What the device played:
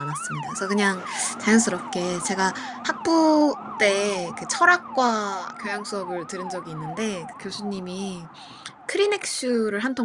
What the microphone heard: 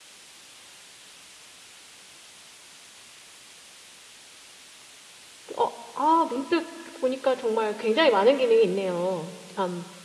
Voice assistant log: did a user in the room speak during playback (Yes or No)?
Yes